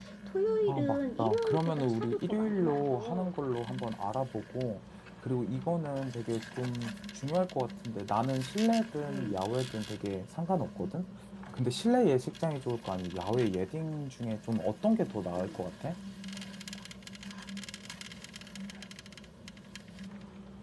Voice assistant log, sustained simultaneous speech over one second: present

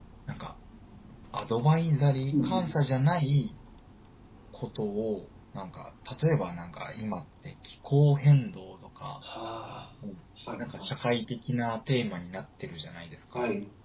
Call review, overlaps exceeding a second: none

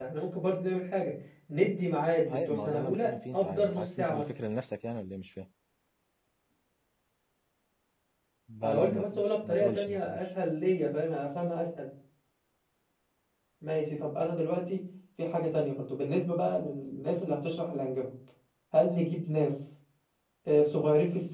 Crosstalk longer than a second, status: present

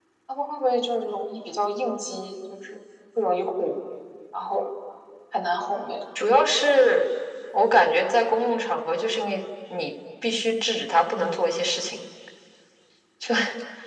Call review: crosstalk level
none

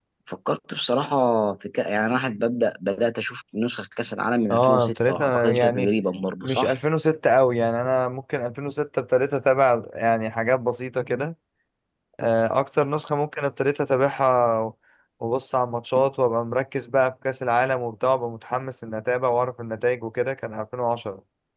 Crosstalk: present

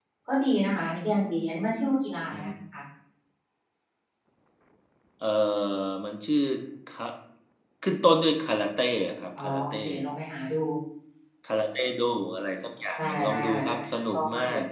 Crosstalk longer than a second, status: present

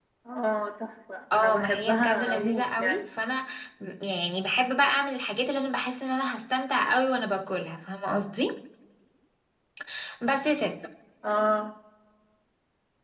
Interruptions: present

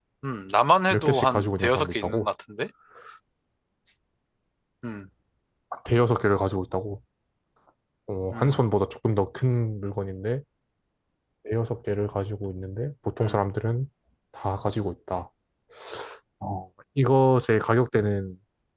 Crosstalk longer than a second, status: present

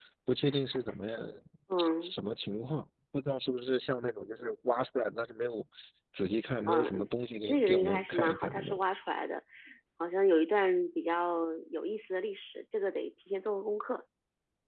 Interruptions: present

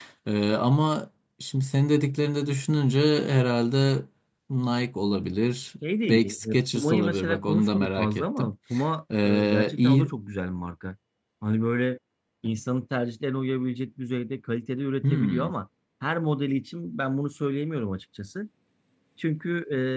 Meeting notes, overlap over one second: present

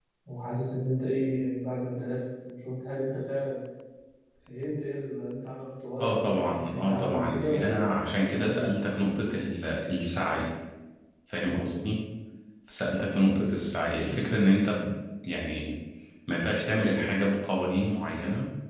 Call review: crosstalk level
present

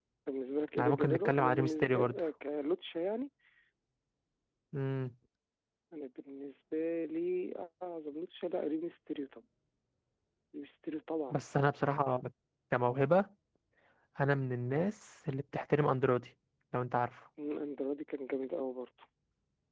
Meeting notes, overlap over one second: present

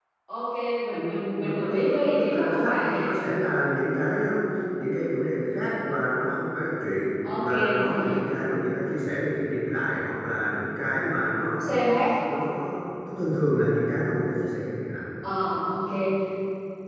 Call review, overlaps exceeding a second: present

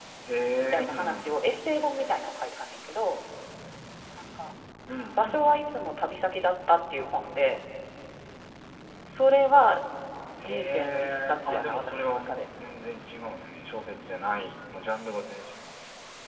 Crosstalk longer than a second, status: present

